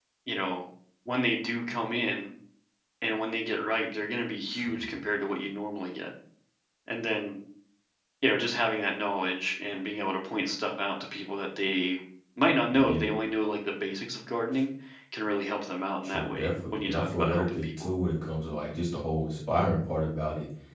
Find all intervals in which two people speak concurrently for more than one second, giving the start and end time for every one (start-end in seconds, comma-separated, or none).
16.0-17.7